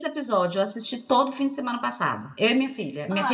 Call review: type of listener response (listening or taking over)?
taking over